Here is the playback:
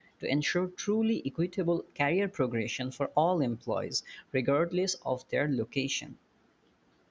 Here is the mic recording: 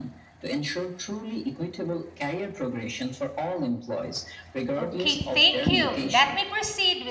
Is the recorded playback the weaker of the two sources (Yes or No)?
Yes